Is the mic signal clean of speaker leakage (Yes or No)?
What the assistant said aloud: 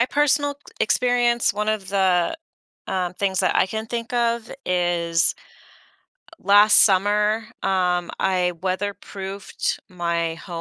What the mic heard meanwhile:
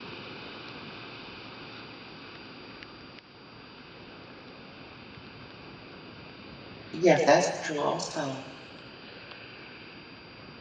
Yes